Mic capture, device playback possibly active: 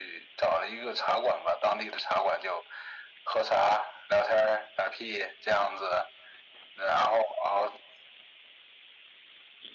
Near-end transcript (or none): none